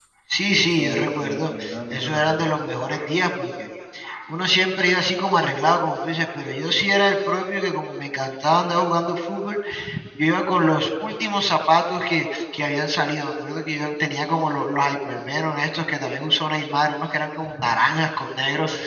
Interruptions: present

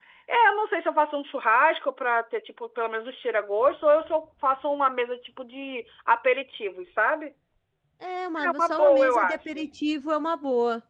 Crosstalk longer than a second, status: present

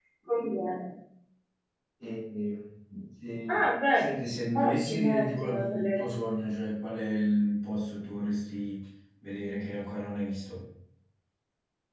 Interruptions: present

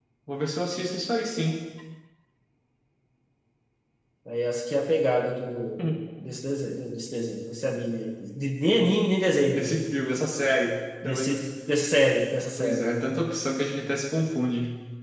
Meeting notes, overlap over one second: none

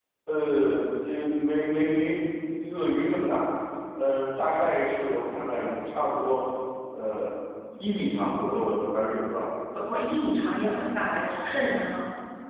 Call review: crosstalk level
none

